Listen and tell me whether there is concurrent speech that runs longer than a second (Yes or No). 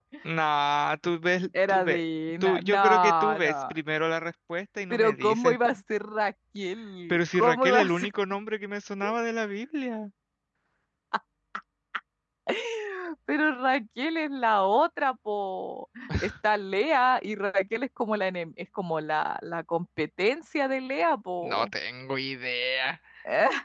Yes